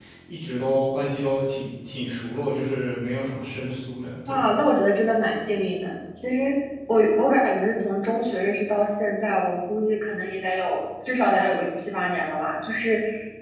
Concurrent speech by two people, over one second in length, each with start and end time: none

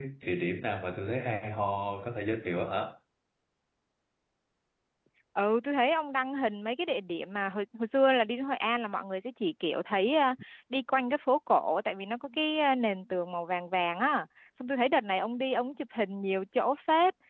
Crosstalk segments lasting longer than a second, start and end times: none

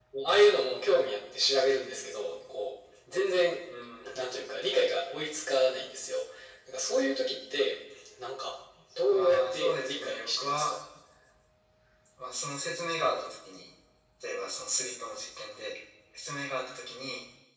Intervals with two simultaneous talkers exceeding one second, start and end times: 9.1-10.7

